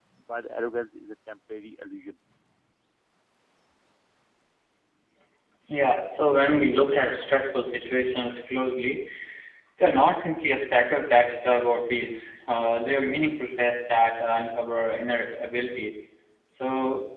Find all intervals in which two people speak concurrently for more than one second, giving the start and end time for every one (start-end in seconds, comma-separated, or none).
none